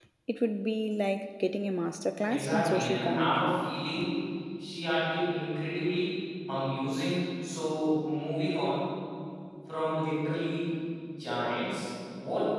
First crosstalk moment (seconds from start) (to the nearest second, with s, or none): 2 s